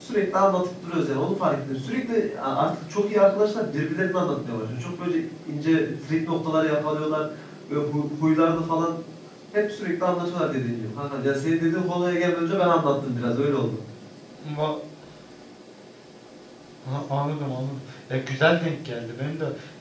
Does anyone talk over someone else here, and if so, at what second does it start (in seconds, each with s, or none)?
none